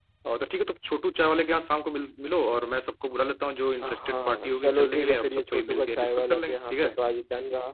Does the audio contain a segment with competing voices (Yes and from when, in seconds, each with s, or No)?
Yes, from 3.8 s